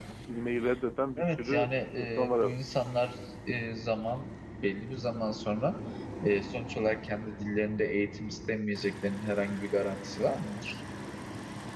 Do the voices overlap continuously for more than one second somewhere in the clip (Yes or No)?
Yes